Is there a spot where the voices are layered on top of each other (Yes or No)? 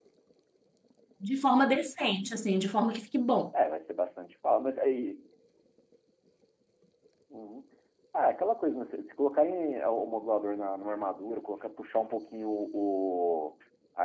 No